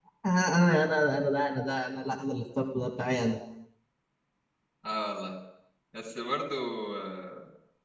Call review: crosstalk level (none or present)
none